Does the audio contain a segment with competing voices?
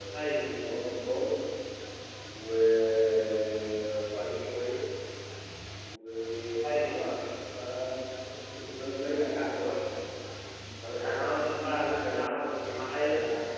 Yes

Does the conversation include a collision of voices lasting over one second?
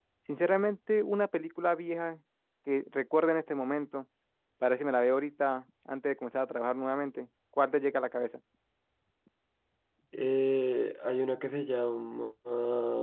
No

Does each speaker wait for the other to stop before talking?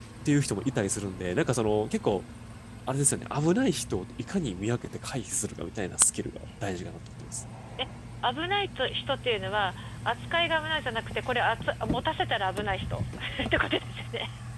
Yes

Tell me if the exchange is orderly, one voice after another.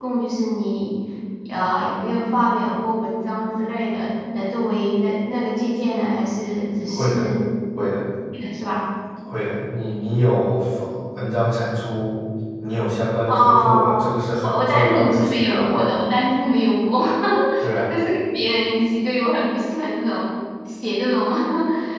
No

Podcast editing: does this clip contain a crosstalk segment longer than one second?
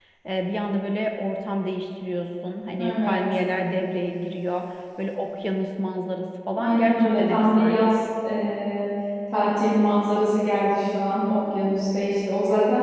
Yes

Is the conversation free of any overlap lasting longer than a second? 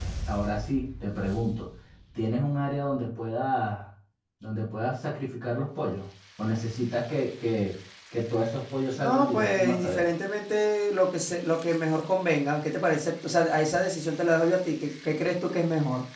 No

